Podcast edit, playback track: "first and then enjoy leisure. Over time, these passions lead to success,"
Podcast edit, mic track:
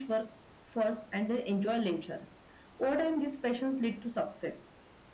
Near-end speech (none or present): none